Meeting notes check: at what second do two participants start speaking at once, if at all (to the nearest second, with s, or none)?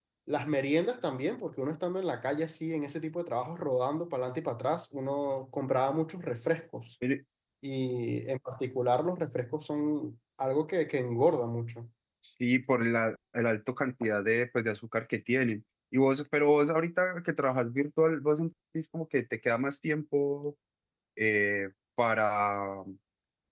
none